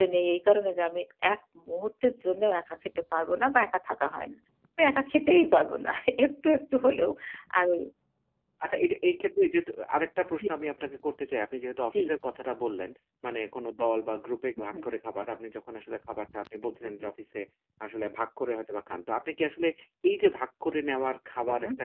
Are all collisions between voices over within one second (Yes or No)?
Yes